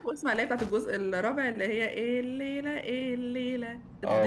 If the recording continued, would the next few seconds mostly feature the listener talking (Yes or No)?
Yes